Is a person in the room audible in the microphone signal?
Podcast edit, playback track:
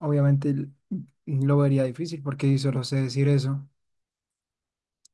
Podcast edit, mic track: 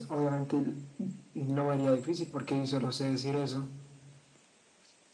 No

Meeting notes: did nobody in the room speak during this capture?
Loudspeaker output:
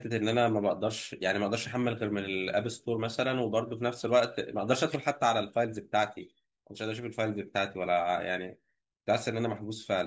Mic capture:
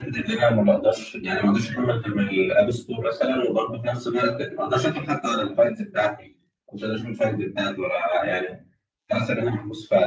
Yes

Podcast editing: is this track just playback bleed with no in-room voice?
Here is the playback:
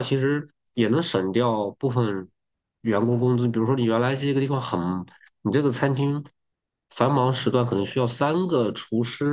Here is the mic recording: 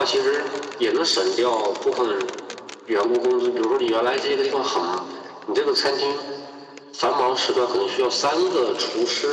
Yes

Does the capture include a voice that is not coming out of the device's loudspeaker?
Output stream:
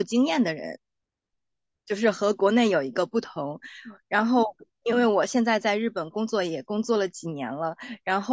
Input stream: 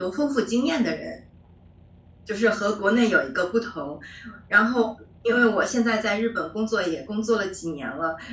No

